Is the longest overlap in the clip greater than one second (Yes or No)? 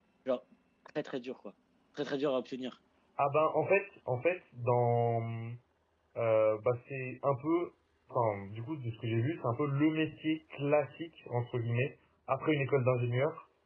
No